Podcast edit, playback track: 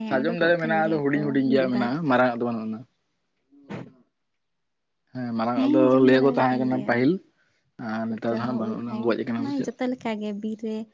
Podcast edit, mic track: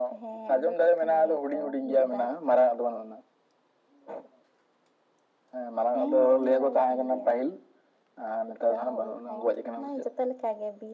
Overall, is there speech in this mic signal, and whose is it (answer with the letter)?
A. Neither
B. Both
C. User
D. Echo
D